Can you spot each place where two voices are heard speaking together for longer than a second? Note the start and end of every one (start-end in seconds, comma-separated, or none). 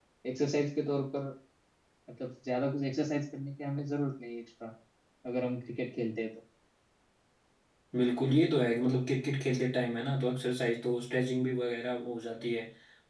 none